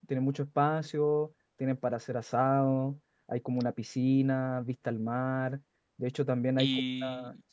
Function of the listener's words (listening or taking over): taking over